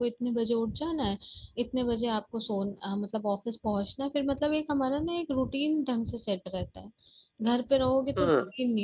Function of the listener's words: listening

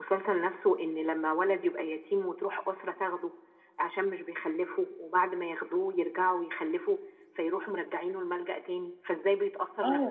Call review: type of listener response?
taking over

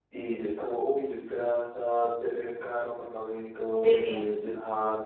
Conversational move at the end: listening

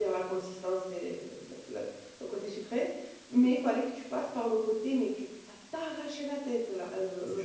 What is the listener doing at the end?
taking over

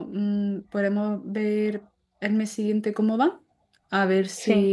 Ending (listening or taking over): listening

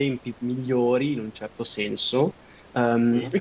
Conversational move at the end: listening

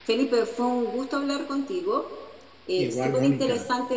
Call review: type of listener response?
listening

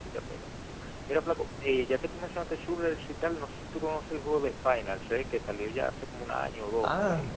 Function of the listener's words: taking over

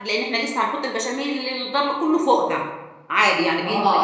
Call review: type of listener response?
taking over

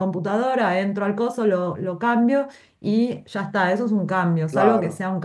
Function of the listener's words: listening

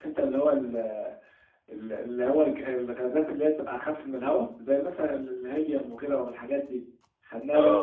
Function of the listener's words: listening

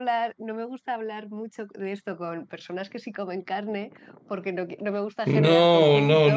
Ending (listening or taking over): taking over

